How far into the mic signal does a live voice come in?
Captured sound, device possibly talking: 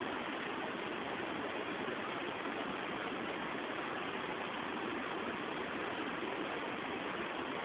none

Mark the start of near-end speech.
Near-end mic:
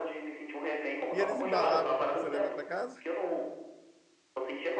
1.1 s

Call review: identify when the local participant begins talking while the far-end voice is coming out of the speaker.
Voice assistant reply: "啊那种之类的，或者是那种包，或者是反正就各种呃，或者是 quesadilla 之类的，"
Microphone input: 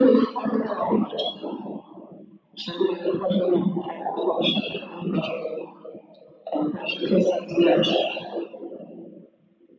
none

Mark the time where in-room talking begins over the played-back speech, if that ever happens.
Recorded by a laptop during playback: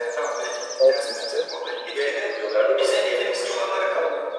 0.8 s

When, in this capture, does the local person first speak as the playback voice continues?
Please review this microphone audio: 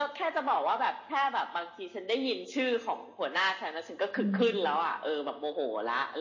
4.2 s

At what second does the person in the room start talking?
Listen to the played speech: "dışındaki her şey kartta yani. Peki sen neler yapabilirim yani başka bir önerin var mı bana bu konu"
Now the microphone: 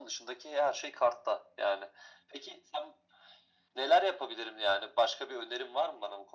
none

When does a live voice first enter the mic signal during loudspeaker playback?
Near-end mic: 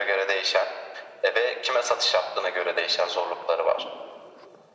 none

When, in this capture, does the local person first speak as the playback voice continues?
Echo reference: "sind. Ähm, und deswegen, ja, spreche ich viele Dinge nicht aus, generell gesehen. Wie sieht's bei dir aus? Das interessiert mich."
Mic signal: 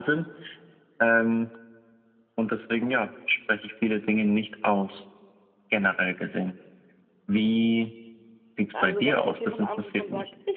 8.7 s

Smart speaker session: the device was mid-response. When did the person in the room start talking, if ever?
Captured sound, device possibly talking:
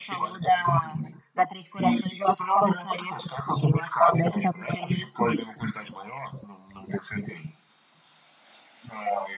none

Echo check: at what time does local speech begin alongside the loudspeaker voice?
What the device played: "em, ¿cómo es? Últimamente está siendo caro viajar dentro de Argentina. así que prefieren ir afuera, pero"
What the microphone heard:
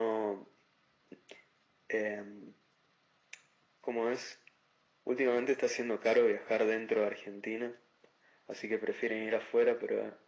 none

